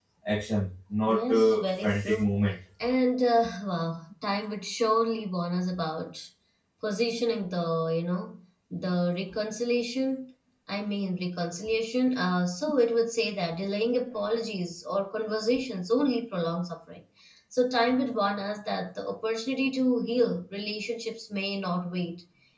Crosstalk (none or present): present